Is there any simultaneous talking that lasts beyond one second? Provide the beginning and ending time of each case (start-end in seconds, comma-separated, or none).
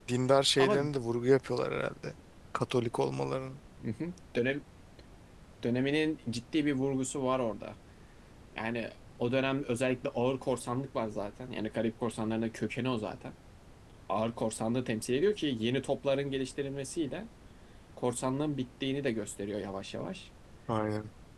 none